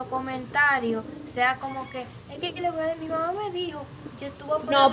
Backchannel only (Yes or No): No